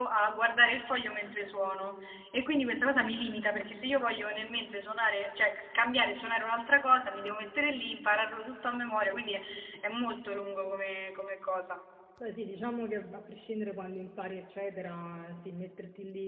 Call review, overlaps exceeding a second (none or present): none